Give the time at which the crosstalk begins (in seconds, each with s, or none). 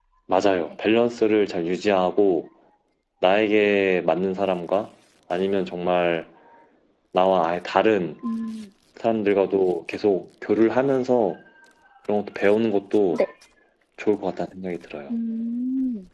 none